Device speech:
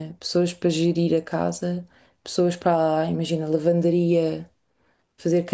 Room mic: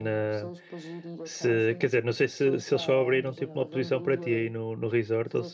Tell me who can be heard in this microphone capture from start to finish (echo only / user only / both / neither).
both